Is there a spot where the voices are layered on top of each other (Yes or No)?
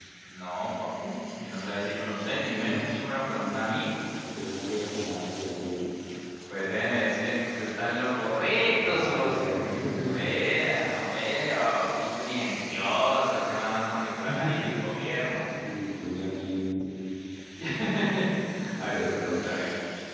Yes